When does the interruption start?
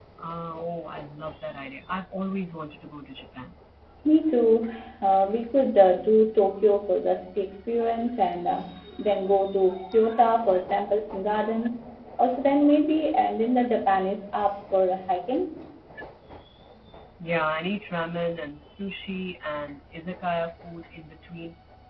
none

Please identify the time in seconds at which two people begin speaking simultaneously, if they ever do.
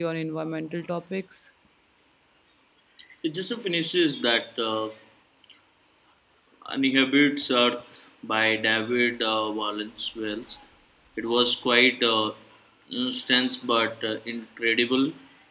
none

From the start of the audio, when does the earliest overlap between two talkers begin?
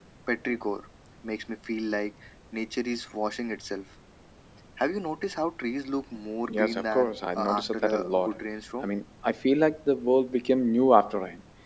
6.5 s

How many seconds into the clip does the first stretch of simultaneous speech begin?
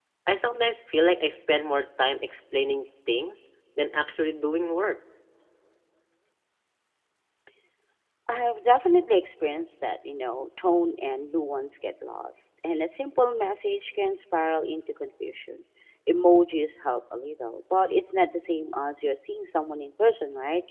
none

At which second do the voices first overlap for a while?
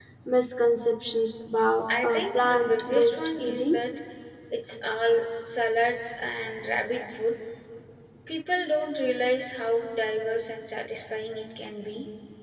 1.9 s

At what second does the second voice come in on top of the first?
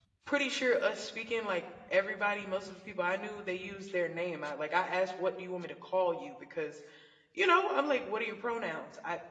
none

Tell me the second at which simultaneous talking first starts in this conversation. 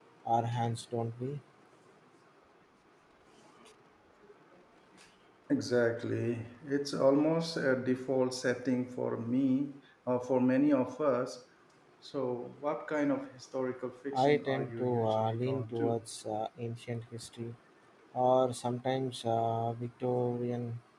14.1 s

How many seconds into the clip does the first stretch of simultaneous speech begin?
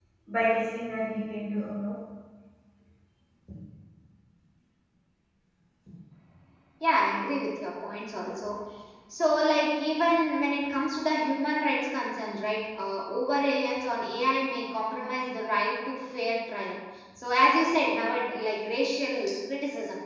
none

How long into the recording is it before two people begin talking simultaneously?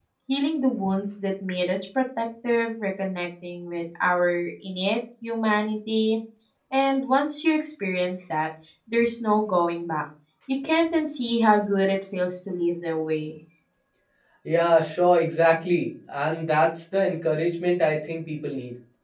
none

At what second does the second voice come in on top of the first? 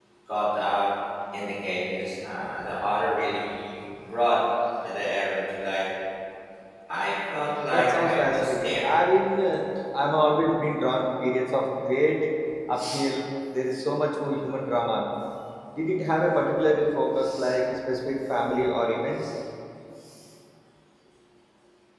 7.7 s

